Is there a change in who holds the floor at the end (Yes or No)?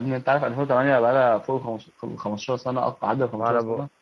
Yes